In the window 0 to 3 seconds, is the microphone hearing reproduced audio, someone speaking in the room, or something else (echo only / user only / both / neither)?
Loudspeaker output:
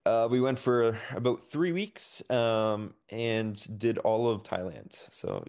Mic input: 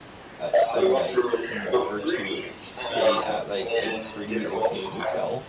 both